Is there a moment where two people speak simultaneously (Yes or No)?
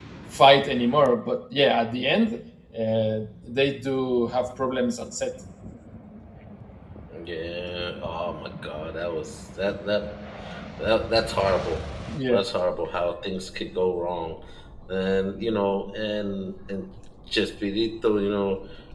No